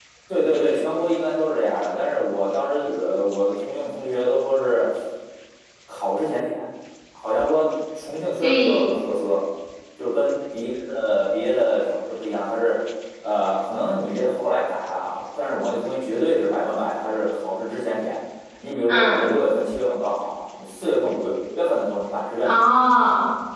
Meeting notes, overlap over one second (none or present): none